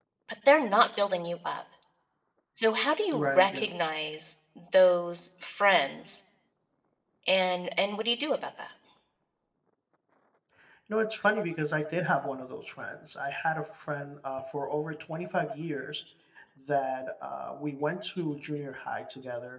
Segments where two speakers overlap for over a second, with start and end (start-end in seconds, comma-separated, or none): none